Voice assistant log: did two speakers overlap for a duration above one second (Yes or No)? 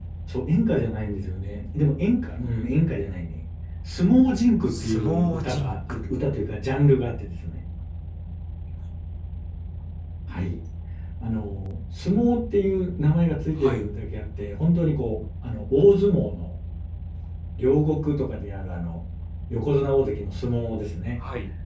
Yes